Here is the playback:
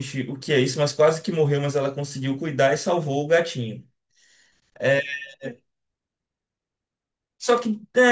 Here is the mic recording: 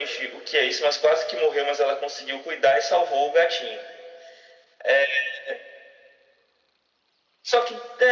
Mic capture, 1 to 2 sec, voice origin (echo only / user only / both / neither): echo only